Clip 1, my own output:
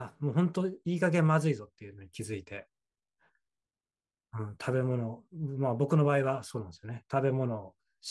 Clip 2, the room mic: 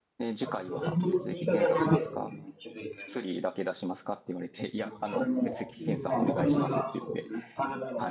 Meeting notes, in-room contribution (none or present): present